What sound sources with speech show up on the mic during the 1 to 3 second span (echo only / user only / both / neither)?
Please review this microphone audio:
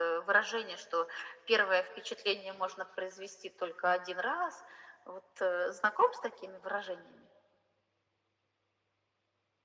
echo only